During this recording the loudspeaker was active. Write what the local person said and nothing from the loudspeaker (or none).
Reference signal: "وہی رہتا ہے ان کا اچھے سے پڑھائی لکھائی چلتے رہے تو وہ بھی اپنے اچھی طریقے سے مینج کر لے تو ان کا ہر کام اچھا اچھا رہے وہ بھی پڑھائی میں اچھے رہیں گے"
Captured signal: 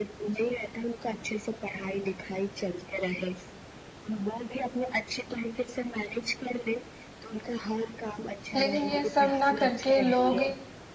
لیکن یہ سب نہ کر کے لوگ